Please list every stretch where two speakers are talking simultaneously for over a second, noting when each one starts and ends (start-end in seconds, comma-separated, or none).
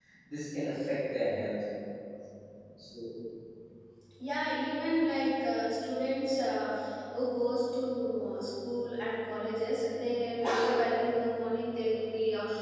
none